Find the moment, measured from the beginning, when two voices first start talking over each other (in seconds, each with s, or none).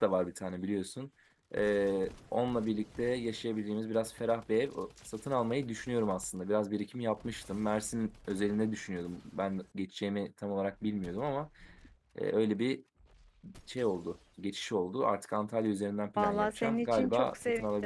16.1 s